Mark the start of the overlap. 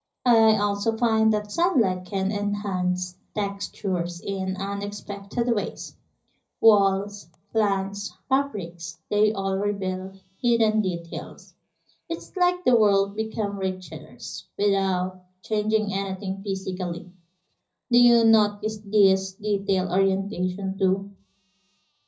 none

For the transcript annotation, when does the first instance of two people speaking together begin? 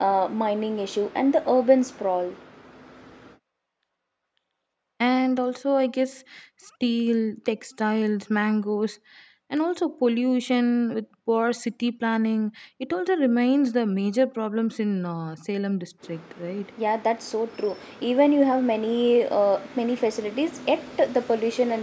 none

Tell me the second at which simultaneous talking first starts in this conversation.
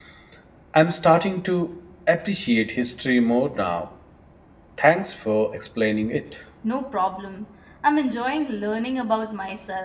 none

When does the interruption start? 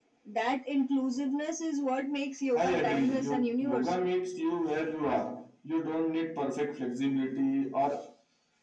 2.6 s

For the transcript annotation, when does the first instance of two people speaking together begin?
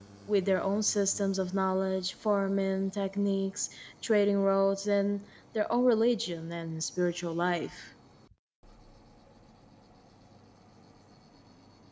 none

